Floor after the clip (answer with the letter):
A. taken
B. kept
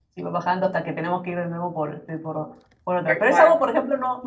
B